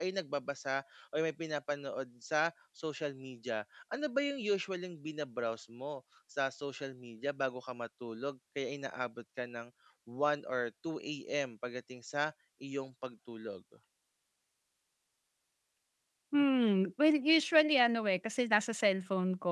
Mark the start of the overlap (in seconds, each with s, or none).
none